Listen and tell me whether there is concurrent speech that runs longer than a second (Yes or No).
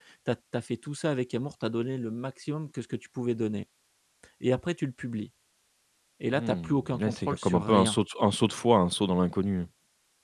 Yes